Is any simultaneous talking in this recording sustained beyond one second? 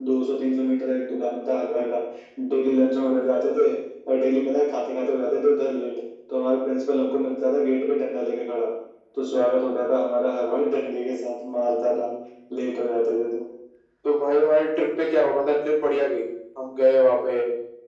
No

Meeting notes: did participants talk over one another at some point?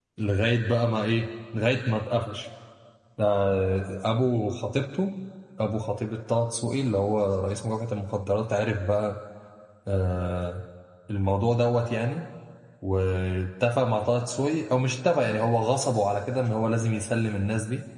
No

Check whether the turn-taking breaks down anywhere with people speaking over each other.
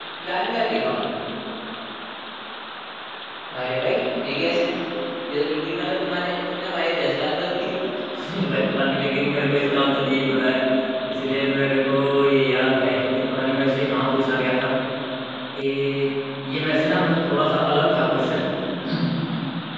No

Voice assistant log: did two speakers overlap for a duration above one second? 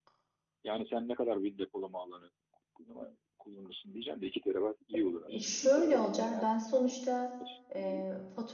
Yes, from 5.3 s

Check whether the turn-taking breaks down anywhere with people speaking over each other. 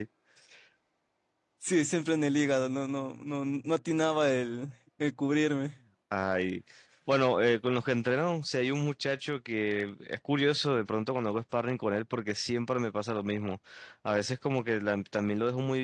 No

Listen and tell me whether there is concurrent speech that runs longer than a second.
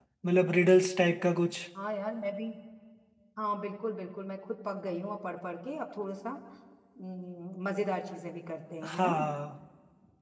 No

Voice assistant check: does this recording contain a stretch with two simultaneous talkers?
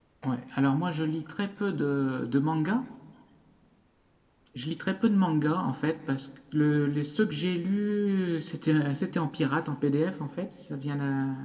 No

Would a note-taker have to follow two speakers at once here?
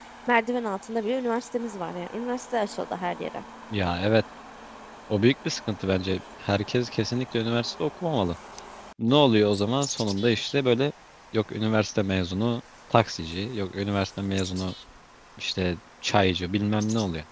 No

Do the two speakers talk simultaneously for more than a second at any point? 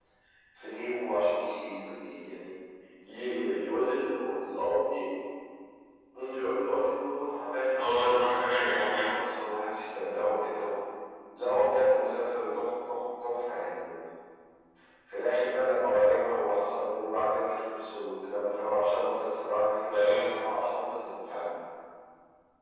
Yes, from 7.8 s

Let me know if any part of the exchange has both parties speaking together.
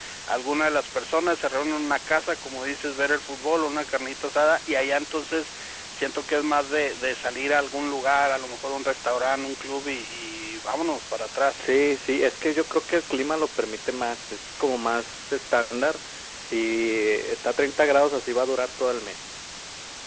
No

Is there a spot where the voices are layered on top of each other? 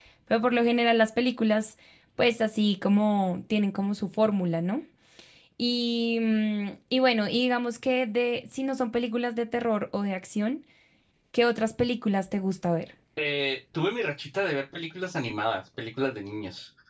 No

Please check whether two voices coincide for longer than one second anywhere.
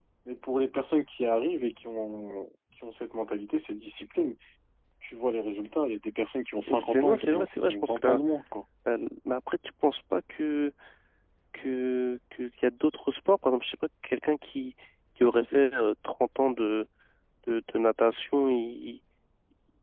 Yes, from 6.7 s

